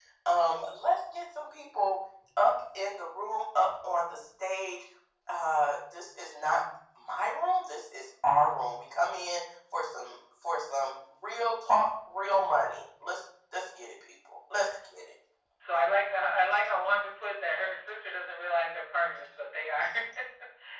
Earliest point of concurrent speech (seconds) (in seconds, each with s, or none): none